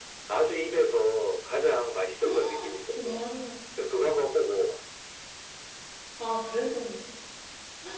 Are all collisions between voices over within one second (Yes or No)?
Yes